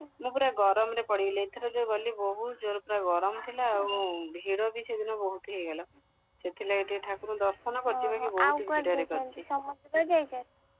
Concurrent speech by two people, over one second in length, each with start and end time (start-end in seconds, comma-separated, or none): 8.0-9.4